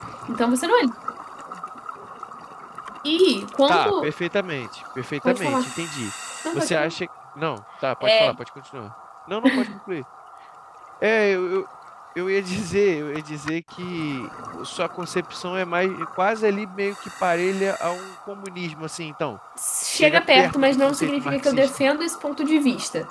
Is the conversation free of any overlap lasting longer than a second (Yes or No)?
No